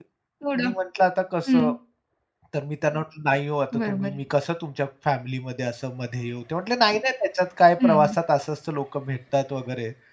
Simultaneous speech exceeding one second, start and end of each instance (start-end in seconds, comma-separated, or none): none